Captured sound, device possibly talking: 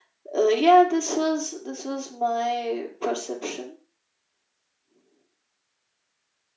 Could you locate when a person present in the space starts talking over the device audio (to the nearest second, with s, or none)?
none